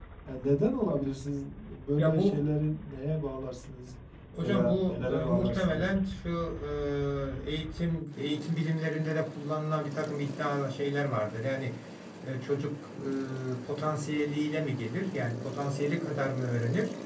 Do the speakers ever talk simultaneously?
Yes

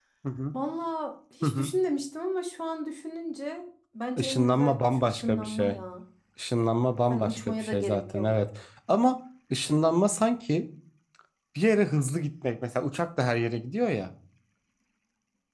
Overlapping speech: Yes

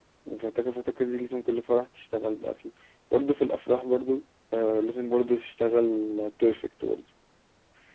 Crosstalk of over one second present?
No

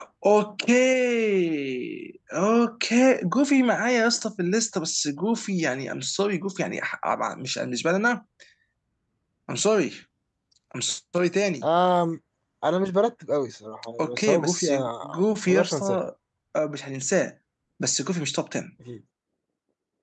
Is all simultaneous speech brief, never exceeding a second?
No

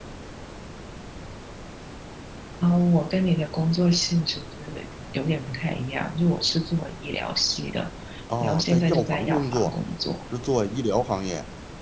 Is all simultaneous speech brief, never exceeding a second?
No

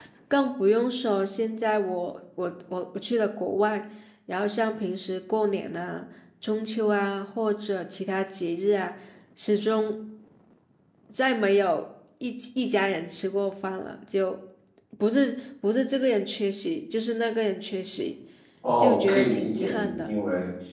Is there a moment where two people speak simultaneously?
Yes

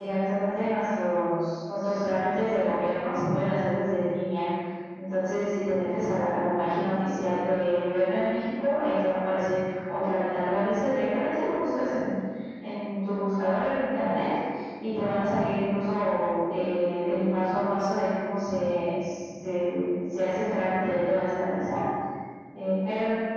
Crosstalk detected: No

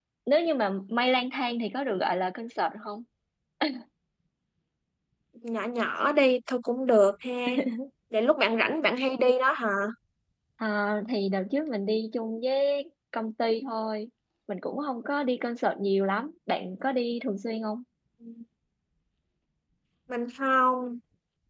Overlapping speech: No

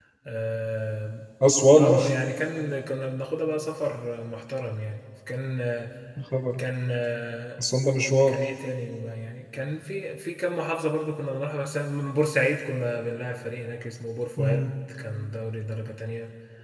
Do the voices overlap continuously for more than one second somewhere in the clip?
No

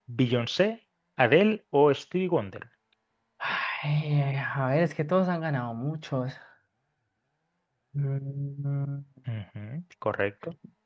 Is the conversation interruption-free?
Yes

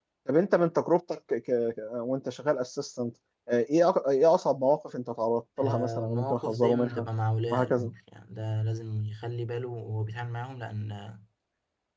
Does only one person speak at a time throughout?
No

